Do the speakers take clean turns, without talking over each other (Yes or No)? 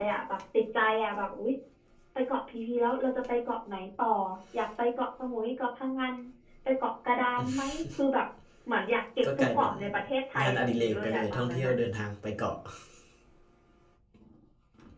No